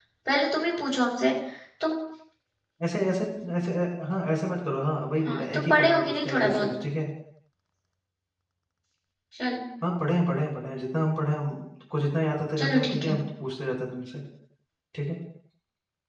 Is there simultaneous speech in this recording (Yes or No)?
Yes